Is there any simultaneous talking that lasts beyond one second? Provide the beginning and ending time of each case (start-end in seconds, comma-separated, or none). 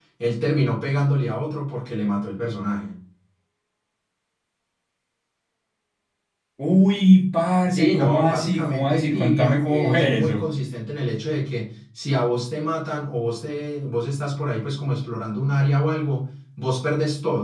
7.6-10.4